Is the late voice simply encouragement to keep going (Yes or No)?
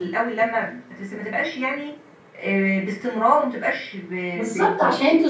No